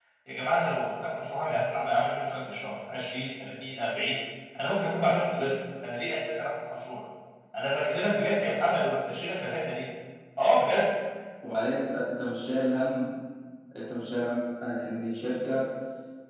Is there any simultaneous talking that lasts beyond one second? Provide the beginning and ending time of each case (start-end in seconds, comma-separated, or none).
none